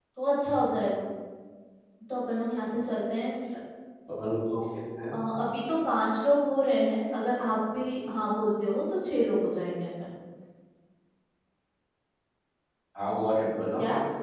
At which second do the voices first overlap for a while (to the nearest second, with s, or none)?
none